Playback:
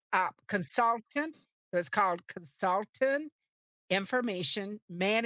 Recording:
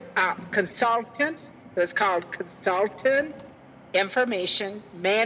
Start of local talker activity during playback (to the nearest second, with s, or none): none